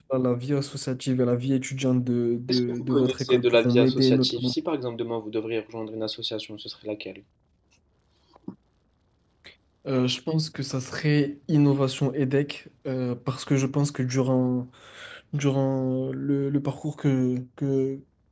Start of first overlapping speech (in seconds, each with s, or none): 2.5 s